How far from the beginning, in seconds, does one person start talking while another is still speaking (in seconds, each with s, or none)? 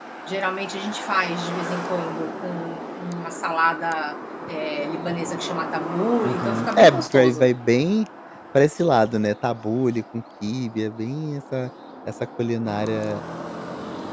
6.2 s